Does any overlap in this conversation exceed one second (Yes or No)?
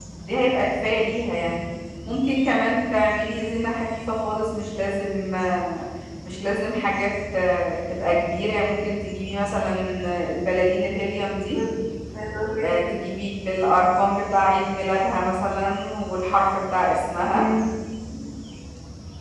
No